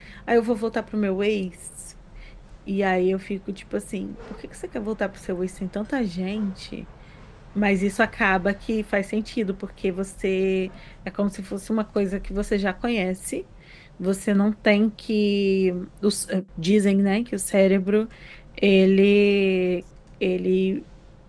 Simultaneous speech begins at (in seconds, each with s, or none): none